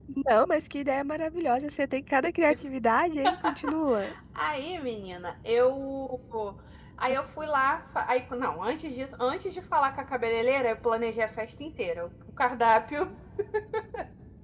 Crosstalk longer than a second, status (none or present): none